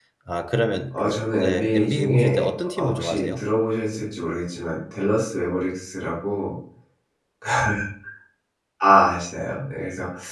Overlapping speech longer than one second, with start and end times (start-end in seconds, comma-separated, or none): 0.9-3.5